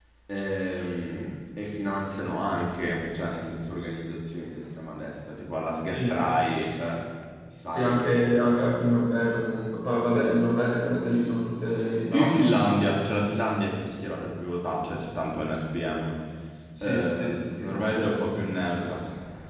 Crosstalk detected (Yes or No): Yes